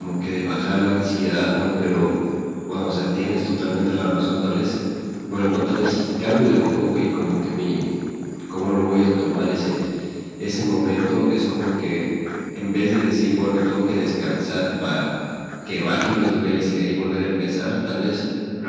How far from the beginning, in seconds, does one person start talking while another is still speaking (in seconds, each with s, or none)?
none